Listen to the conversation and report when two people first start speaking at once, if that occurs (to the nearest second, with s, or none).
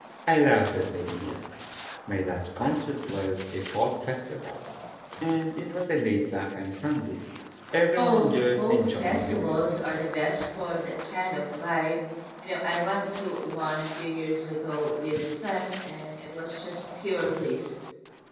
8 s